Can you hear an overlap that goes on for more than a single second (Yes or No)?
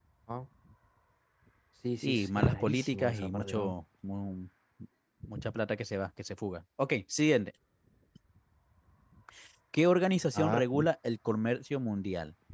Yes